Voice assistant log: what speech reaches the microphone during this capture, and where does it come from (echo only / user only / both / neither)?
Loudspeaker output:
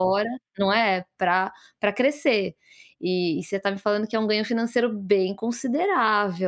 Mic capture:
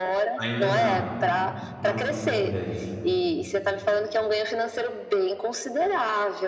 both